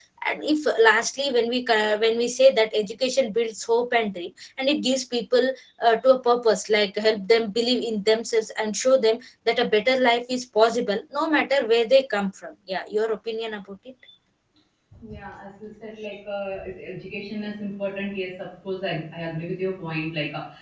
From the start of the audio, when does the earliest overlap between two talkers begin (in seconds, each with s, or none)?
none